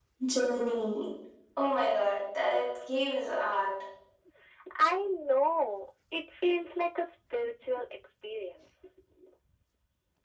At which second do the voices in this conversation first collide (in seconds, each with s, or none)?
none